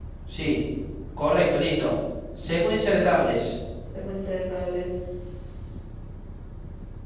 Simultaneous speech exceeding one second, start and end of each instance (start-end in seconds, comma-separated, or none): none